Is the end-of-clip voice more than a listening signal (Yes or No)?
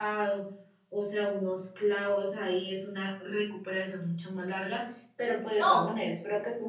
No